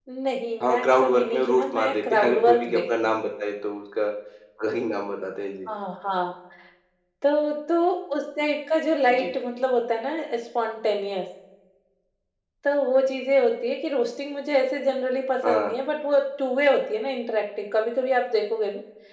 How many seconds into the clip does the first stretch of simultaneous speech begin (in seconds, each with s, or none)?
0.6 s